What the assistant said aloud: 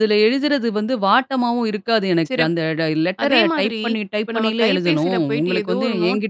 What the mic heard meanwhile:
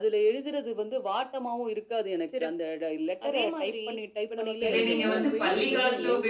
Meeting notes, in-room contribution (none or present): present